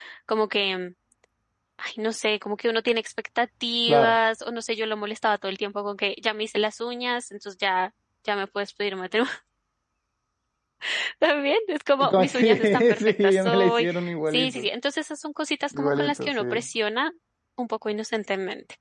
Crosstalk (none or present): present